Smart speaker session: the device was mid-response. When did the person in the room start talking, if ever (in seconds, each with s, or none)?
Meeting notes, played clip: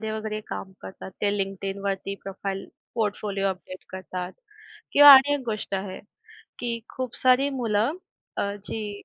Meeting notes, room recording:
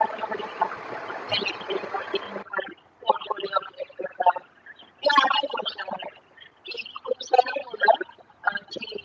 none